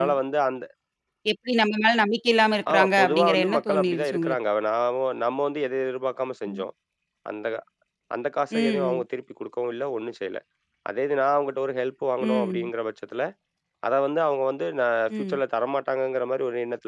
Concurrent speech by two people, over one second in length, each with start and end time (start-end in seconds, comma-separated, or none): 2.7-4.4